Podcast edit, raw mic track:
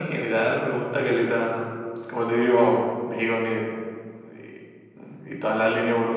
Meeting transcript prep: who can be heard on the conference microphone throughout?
echo only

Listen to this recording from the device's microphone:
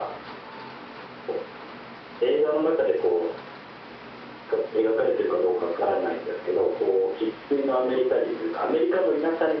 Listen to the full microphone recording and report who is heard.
echo only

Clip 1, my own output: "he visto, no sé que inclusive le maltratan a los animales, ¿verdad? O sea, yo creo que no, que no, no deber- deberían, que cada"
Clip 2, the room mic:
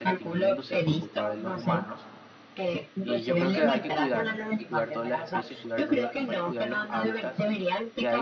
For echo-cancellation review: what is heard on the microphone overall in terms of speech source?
both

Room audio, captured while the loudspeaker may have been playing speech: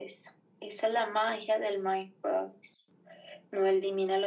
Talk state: echo only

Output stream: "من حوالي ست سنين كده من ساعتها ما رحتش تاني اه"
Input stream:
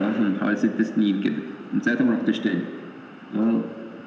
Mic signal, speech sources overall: echo only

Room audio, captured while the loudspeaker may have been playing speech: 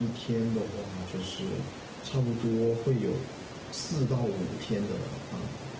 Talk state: user only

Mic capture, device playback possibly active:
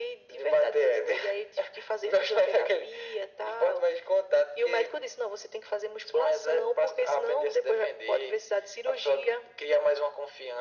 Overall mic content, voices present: echo only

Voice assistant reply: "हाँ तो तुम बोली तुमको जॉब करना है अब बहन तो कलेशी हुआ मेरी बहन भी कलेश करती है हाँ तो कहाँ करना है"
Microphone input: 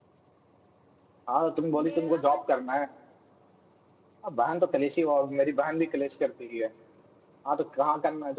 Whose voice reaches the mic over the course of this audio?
both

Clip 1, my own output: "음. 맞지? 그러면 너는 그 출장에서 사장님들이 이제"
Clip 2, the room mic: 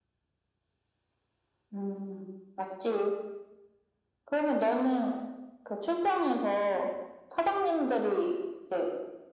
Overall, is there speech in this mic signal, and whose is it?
echo only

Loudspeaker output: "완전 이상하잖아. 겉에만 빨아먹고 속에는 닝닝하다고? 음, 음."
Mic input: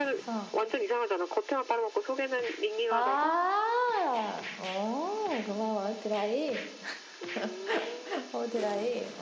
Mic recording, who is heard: both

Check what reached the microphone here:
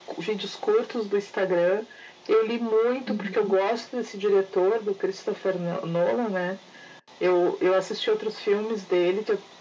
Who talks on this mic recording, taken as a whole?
both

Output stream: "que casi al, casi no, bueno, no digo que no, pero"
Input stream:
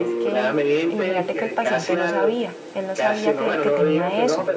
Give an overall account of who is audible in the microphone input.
both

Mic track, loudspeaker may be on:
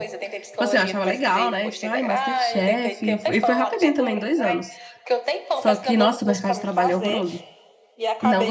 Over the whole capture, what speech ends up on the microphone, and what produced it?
both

